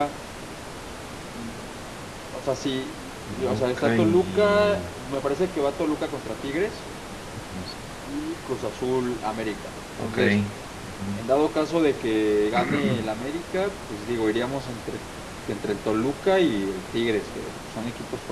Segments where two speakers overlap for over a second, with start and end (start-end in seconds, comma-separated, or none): 3.3-4.8